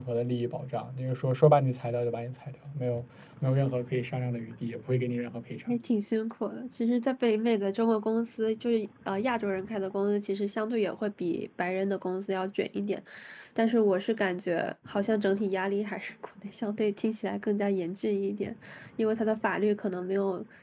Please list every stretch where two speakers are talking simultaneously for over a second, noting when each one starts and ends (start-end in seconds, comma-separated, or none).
none